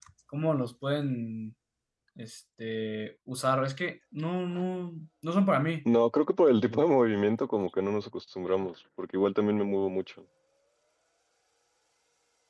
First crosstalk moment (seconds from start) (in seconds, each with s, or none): none